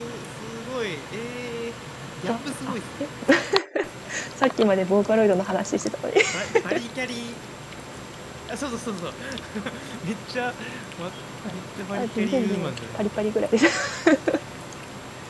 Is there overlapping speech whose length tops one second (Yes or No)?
Yes